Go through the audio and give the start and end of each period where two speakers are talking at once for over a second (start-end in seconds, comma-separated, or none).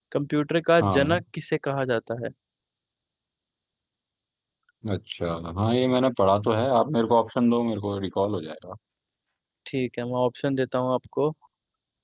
none